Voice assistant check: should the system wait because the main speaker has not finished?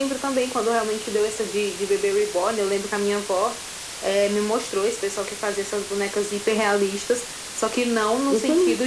Yes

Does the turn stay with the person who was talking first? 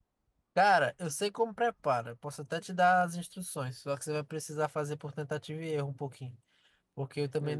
Yes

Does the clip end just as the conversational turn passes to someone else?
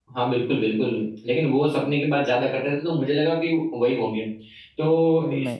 No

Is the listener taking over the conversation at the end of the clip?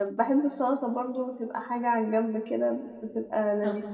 Yes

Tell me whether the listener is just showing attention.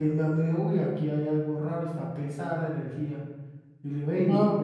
Yes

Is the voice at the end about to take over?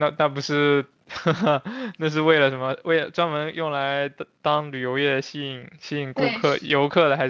No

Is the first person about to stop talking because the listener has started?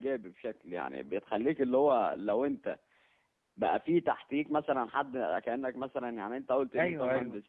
No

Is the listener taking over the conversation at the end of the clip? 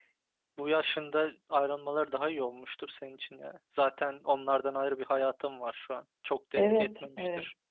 Yes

